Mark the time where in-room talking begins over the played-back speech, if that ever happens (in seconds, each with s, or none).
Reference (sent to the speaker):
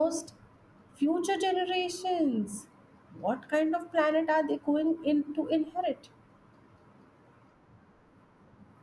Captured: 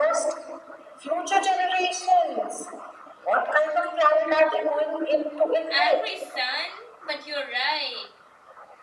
5.7 s